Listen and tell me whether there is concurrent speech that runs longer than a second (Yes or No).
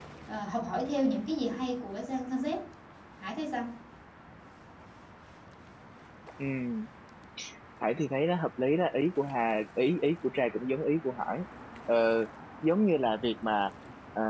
No